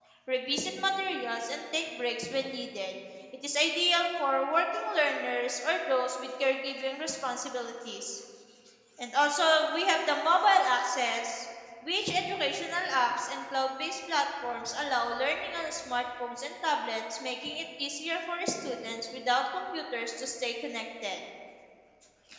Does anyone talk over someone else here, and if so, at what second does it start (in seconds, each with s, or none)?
none